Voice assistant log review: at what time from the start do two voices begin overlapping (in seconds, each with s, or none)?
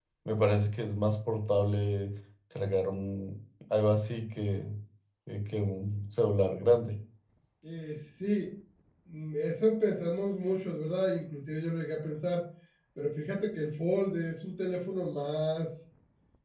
none